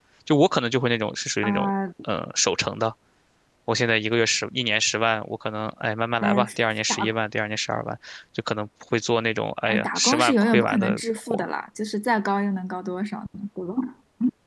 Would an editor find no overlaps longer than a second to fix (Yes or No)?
No